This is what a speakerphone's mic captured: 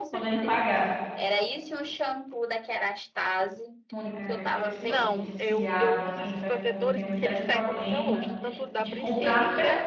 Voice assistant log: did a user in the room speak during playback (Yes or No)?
Yes